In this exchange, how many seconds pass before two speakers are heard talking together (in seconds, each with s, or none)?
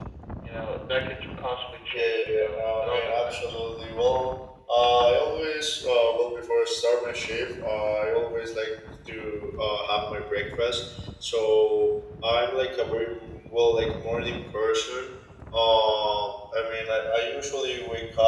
1.9 s